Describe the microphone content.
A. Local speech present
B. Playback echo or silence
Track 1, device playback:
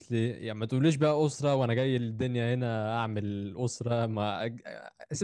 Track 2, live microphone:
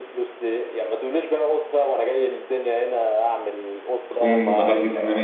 A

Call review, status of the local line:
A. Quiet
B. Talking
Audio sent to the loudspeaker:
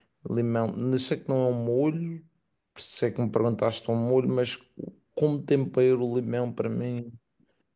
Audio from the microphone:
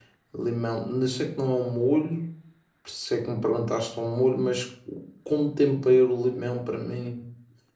A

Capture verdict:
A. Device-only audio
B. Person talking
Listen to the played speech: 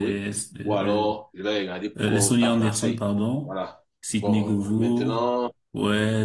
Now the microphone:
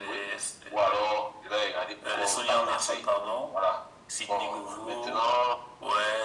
A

